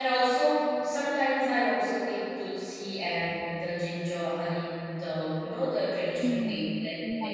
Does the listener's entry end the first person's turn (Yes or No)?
Yes